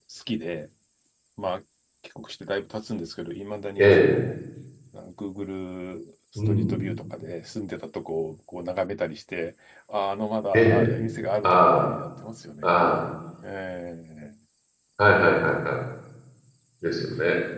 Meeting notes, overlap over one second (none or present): none